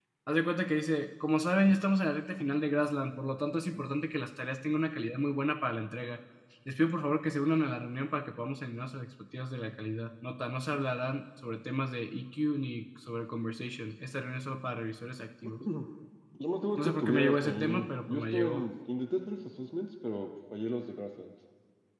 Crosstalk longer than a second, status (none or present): present